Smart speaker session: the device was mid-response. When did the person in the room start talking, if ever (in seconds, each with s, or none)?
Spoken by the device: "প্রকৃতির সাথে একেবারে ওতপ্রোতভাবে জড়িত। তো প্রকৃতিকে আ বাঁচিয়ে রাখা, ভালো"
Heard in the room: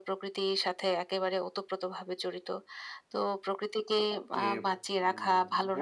4.3 s